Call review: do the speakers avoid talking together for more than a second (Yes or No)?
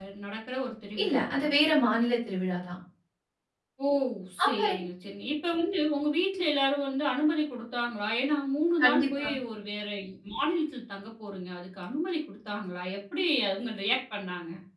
Yes